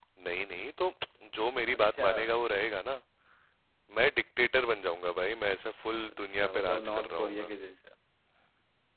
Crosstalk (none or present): present